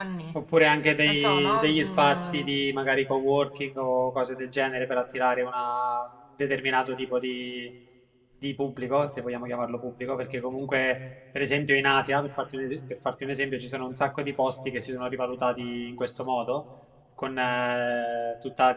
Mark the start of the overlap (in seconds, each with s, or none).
1.1 s